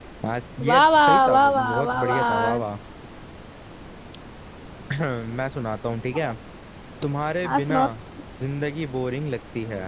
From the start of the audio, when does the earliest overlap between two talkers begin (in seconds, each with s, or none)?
0.7 s